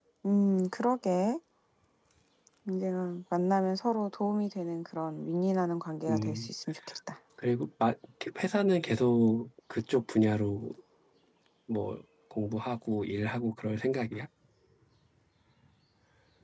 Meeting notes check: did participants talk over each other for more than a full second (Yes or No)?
No